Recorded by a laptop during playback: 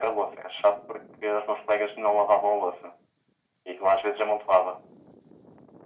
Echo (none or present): present